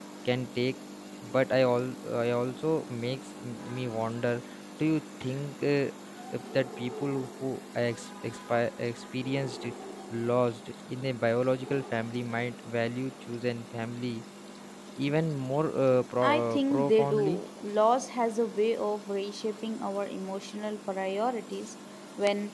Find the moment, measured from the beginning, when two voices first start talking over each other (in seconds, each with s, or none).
16.2 s